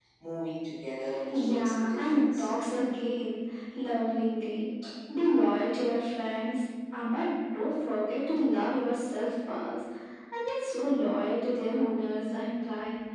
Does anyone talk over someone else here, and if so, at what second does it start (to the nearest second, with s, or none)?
1 s